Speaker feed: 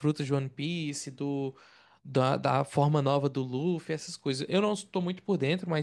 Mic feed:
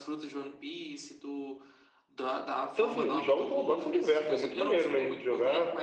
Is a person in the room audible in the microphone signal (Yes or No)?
Yes